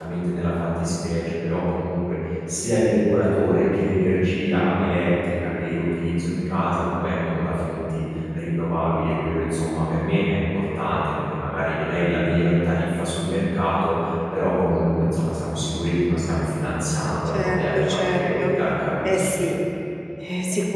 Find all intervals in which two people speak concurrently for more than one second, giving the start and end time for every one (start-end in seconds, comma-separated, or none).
17.3-18.5